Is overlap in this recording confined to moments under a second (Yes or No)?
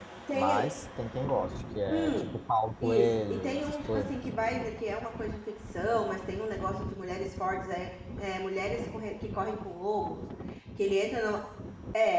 No